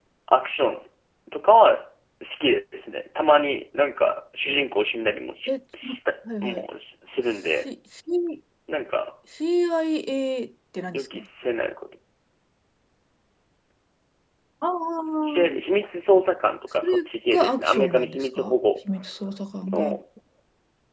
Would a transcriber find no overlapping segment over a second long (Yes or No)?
No